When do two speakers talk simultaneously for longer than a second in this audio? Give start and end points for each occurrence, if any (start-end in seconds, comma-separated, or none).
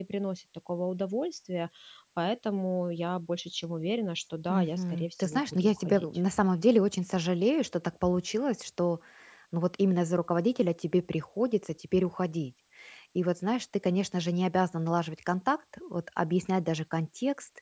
4.5-6.0